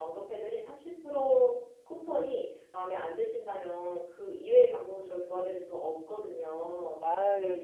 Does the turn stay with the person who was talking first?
No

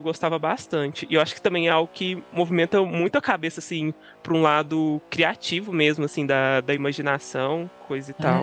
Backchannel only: No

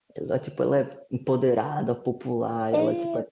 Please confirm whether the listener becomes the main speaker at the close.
No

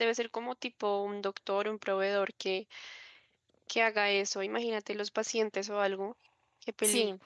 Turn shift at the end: Yes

